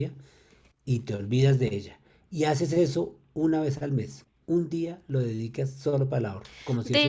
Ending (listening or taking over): taking over